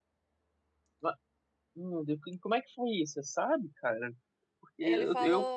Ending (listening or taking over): listening